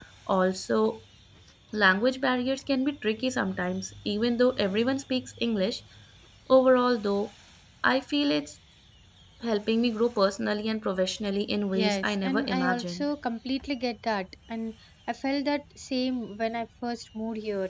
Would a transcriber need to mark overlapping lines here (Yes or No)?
Yes